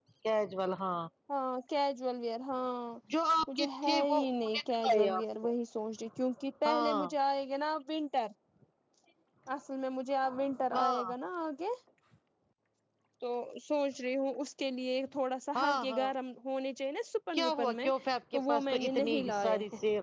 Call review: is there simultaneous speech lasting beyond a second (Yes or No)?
Yes